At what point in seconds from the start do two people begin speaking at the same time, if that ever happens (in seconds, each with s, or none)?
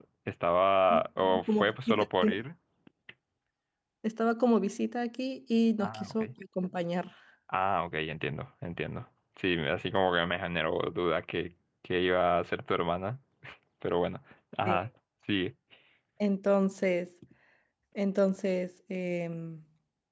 0.9 s